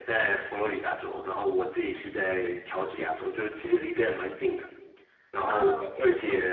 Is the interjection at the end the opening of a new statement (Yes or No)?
No